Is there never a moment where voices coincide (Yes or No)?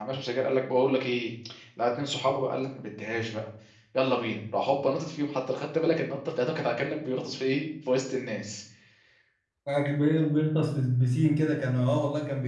Yes